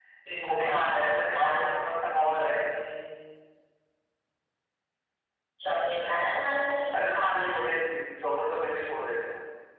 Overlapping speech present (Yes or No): Yes